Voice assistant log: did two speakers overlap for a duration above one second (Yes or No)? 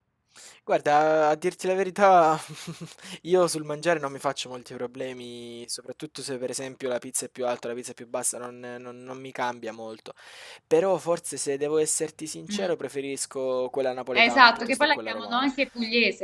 Yes